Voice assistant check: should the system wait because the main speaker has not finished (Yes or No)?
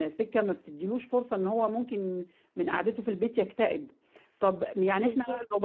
Yes